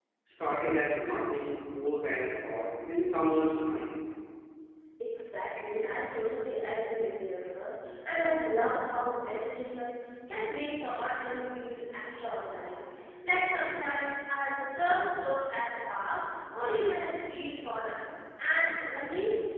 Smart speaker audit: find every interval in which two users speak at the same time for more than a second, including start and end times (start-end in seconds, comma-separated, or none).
none